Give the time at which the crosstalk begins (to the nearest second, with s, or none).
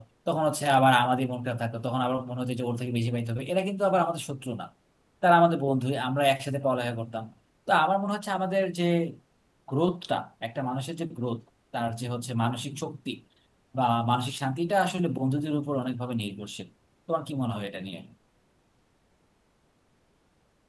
none